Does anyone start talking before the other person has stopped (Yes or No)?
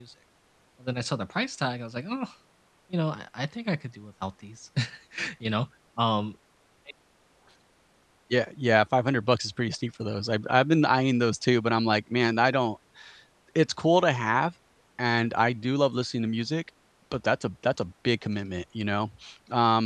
No